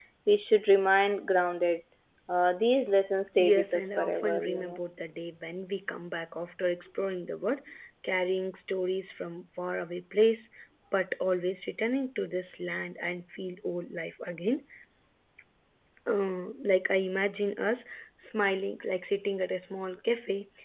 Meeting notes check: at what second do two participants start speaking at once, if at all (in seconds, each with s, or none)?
3.4 s